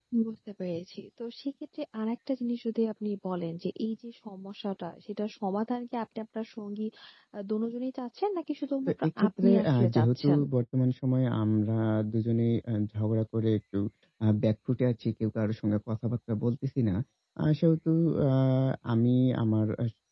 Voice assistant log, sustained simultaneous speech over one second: present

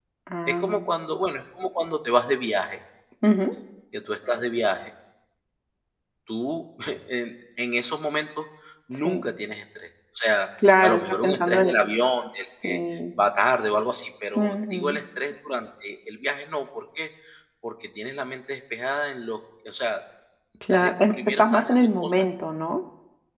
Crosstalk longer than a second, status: present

